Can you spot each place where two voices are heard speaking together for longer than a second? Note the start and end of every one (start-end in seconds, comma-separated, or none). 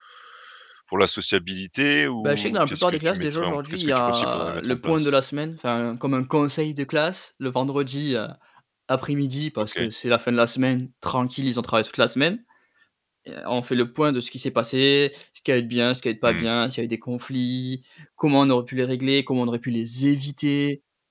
2.2-5.2